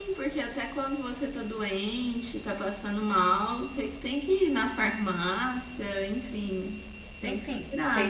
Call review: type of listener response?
taking over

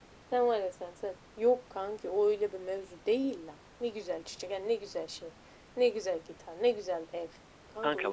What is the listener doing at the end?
taking over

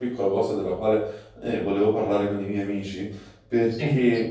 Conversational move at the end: listening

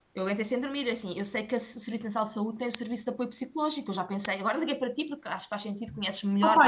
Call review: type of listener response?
taking over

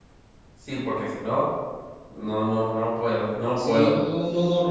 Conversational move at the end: taking over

